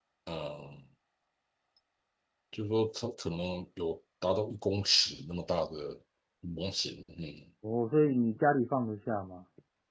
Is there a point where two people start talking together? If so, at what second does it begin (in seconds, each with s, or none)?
none